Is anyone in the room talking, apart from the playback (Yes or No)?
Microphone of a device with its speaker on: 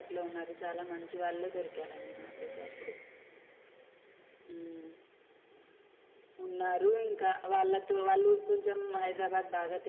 No